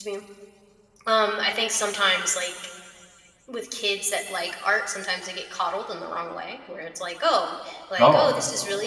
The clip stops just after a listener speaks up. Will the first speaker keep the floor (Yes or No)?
Yes